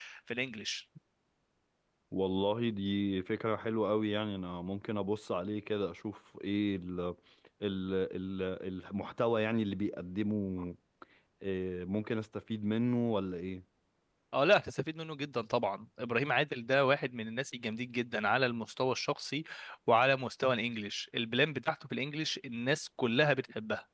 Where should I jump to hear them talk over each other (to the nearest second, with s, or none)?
none